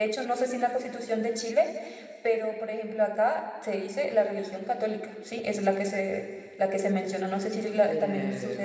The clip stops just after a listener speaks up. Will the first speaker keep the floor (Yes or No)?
No